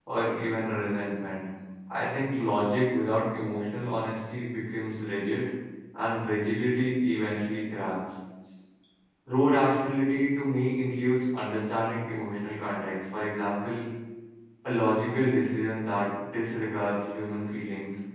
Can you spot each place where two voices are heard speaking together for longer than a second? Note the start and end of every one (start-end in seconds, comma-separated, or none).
none